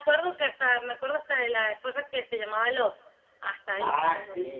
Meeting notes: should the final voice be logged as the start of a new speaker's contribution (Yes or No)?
Yes